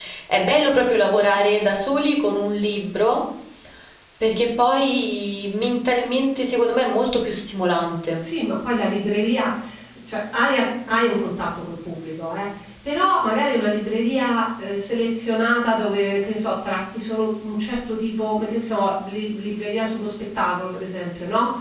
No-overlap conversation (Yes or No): Yes